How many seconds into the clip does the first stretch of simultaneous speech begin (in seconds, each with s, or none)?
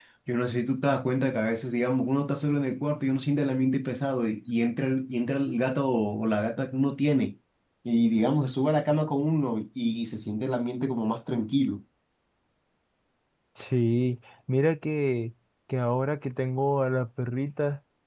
none